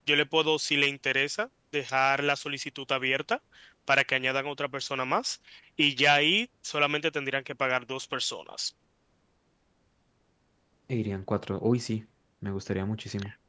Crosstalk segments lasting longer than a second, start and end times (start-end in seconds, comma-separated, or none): none